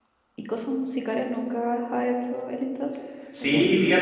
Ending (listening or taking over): taking over